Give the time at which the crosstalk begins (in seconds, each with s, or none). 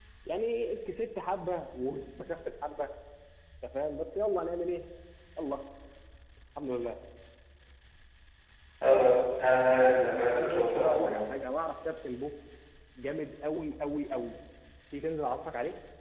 9.8 s